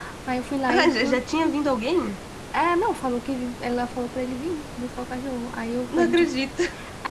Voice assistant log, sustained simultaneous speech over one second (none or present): none